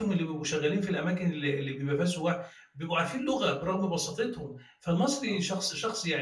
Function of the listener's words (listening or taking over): listening